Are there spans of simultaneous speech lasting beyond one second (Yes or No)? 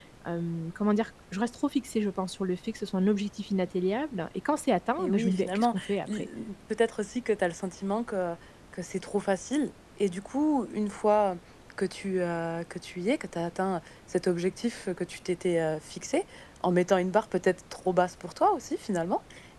Yes